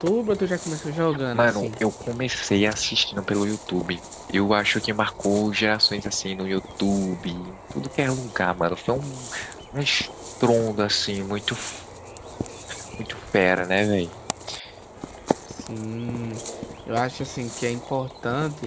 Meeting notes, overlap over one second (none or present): none